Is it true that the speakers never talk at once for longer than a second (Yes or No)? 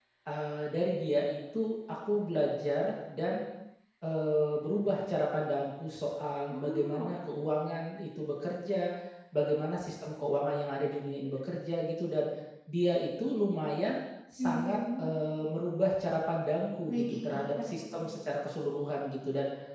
No